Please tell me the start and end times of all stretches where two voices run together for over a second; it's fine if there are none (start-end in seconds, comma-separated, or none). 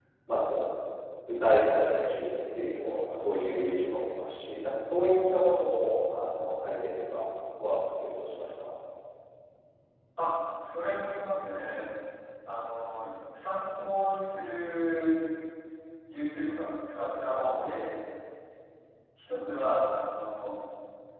none